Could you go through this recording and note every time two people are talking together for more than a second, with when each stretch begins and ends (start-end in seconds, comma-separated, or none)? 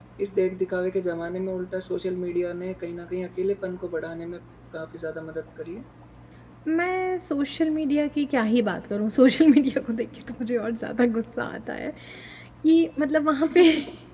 none